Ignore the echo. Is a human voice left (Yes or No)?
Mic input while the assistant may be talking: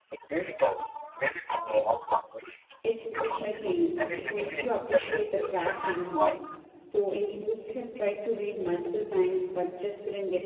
Yes